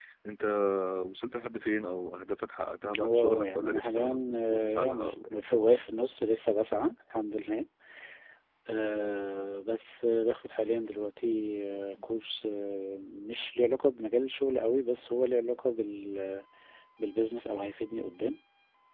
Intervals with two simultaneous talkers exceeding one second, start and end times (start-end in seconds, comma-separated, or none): 3.0-5.4